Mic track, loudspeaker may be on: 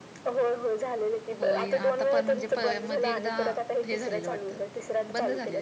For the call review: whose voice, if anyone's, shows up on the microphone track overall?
both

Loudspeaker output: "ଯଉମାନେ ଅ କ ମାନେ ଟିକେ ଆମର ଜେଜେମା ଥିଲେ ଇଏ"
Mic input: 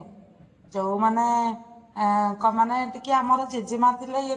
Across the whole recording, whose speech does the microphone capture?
echo only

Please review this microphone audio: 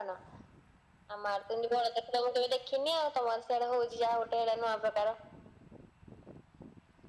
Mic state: echo only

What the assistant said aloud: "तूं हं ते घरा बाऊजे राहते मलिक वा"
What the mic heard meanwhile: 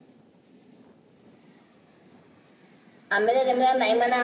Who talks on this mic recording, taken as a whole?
user only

